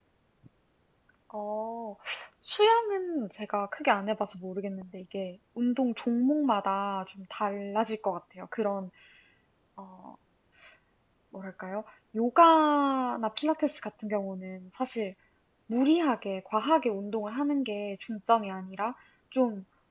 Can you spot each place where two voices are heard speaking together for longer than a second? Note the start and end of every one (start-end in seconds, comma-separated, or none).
none